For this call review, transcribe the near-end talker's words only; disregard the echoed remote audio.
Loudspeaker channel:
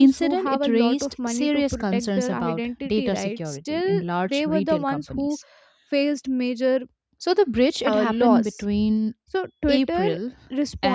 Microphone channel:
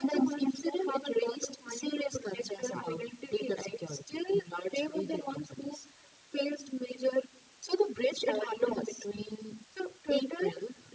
none

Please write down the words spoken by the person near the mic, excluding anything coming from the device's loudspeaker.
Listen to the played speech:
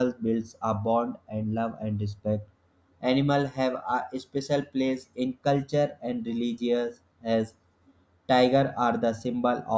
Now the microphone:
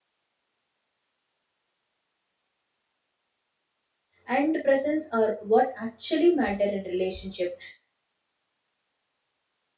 and presence are what actually matter in relationship.

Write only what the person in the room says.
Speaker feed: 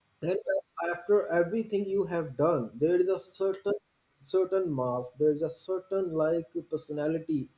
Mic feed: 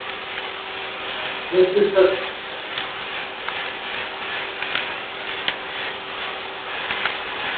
Yes, it's a

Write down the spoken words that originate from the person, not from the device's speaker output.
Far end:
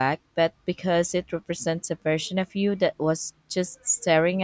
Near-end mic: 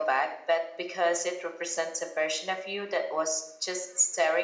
none

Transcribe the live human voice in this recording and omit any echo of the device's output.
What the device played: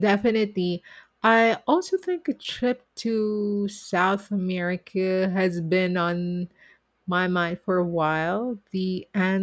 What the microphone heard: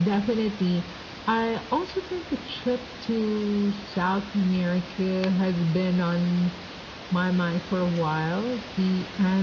none

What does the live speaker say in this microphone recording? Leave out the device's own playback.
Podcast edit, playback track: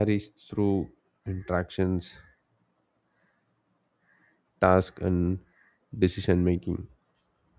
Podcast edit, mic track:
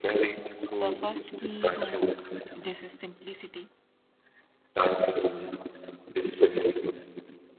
the first key to this is simplicity

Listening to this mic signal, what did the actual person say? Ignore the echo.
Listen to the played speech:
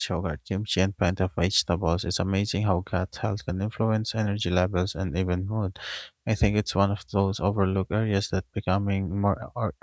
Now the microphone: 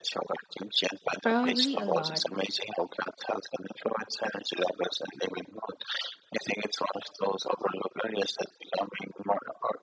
Probably a lot.

